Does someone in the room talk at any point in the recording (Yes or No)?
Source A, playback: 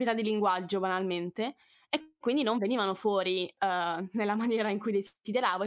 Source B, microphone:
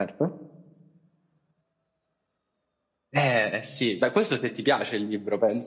Yes